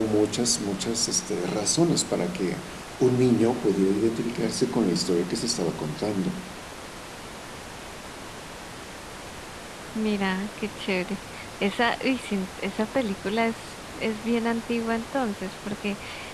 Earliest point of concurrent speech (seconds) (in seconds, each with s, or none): none